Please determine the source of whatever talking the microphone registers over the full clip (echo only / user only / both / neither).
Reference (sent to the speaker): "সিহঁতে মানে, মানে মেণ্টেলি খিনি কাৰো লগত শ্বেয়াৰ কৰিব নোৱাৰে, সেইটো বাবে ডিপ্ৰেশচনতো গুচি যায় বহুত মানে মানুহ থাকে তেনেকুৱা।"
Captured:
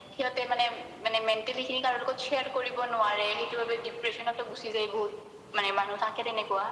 echo only